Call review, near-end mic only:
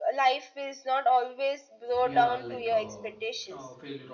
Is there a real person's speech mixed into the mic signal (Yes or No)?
Yes